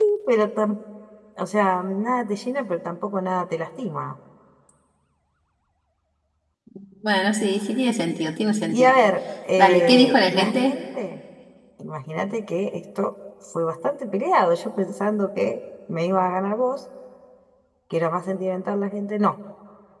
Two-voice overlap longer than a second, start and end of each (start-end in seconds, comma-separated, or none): 9.6-10.8